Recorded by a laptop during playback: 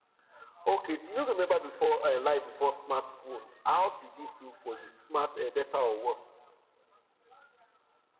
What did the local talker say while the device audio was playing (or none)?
none